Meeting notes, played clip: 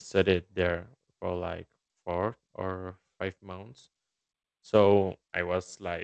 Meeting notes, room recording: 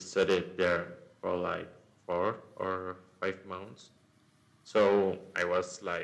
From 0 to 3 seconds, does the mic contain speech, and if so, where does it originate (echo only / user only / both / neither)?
echo only